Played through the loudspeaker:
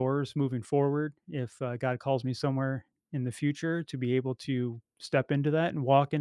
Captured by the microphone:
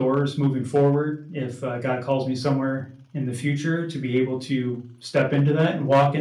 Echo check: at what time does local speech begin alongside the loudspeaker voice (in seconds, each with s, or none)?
none